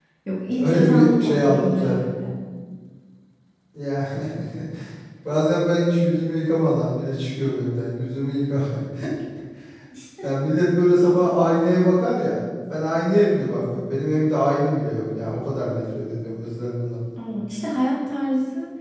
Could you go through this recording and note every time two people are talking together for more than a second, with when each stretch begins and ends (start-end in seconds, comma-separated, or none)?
0.6-1.9